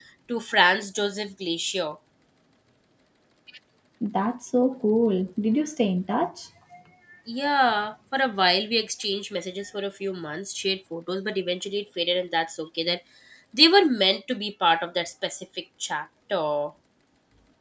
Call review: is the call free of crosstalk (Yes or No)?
Yes